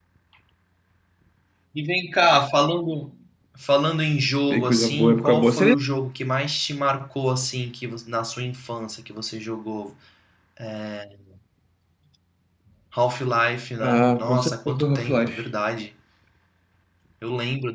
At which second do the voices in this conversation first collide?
4.5 s

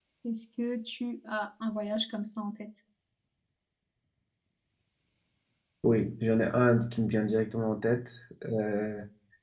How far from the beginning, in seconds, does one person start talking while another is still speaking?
none

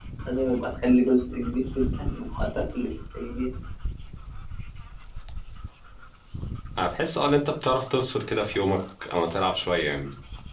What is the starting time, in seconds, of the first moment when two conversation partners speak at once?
none

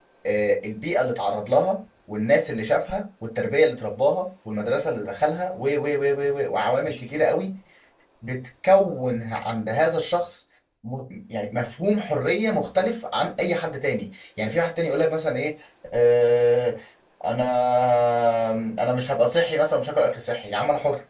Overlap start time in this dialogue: none

